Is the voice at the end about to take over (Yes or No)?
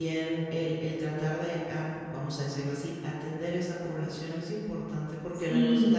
No